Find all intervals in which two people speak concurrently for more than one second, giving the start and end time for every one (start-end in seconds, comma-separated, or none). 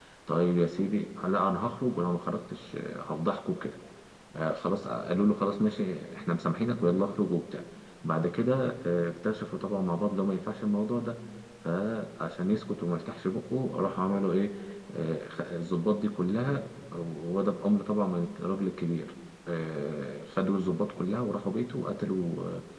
none